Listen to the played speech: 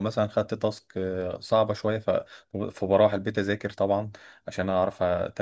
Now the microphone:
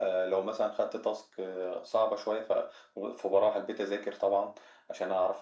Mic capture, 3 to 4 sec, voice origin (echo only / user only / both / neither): echo only